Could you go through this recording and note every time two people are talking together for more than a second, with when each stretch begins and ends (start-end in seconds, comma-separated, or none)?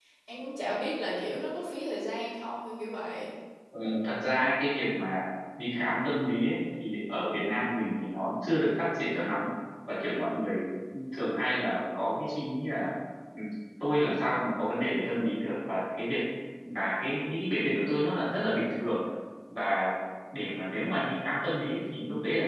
none